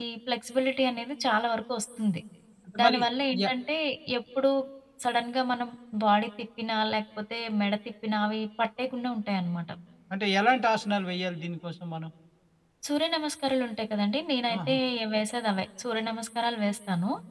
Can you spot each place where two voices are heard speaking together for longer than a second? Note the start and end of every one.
none

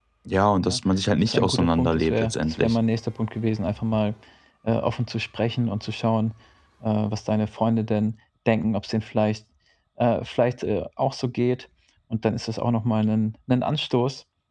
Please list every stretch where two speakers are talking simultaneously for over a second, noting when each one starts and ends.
1.2-2.8

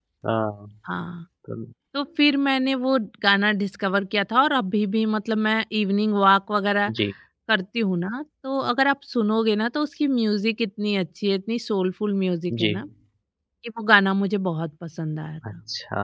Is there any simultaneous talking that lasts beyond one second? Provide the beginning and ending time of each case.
none

